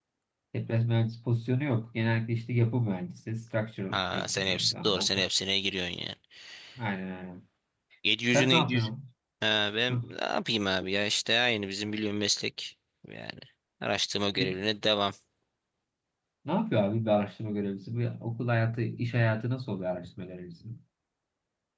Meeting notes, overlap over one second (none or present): present